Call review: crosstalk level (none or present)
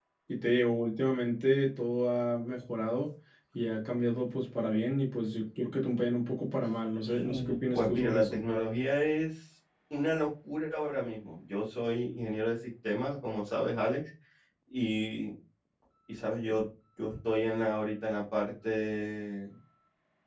present